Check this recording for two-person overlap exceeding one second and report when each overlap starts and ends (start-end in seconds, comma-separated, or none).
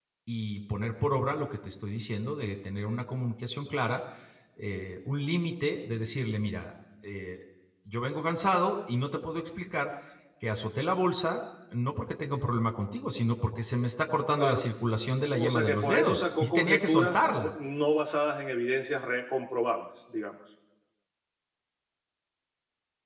15.3-17.5